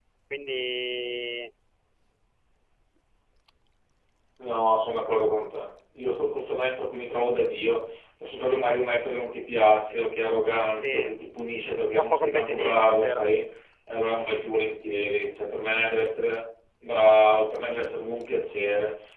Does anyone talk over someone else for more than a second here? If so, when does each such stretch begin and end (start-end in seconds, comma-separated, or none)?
11.9-13.3